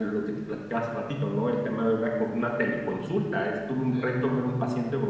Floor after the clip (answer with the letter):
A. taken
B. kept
B